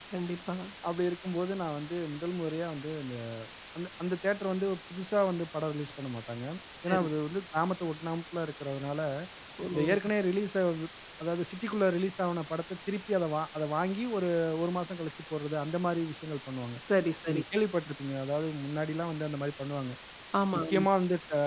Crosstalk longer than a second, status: none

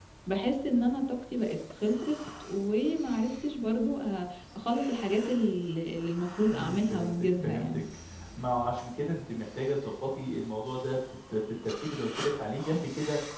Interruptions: present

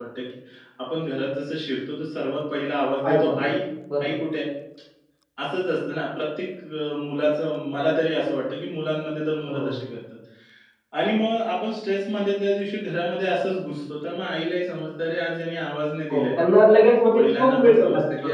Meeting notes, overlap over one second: present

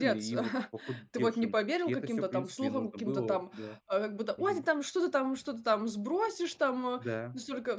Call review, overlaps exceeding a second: present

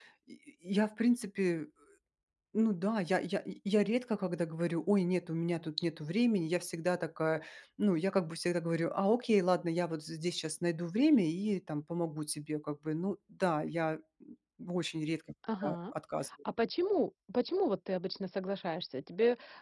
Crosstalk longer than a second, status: none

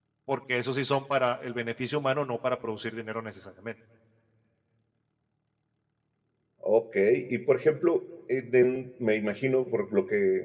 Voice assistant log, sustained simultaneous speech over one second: none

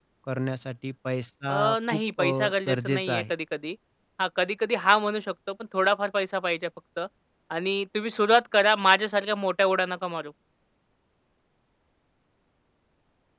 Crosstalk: present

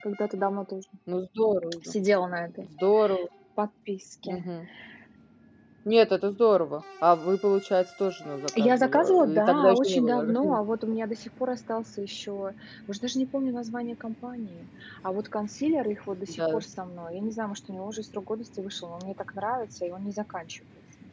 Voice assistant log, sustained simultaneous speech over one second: present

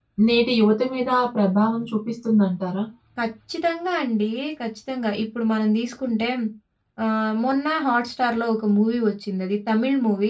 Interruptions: none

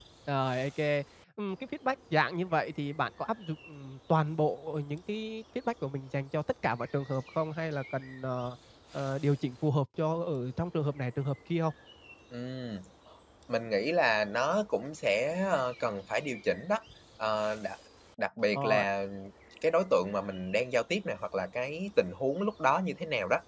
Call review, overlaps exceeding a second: none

